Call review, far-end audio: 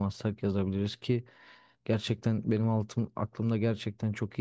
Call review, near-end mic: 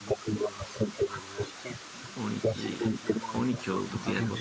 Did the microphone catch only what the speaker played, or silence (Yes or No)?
No